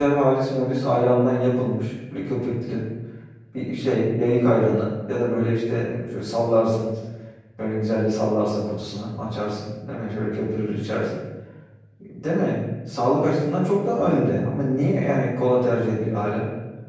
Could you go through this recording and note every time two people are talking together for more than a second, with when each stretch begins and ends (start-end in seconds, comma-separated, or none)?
none